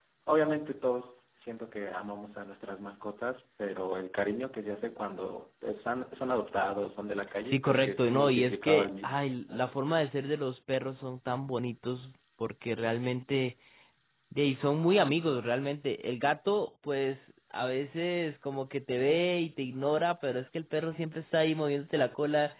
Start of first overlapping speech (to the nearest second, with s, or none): 7 s